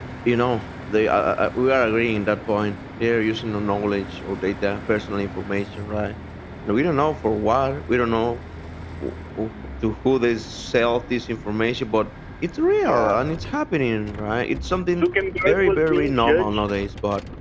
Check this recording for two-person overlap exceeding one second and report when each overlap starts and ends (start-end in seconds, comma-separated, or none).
15.4-16.7